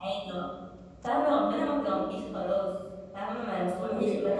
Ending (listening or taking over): taking over